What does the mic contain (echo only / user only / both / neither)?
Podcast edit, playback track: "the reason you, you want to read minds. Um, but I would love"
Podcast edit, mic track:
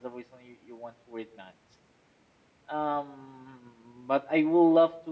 echo only